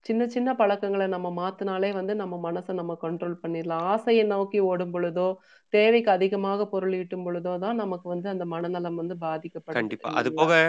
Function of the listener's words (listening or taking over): taking over